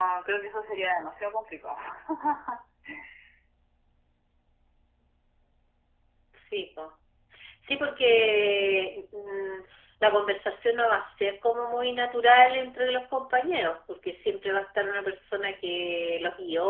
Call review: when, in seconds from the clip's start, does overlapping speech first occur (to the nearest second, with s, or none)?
none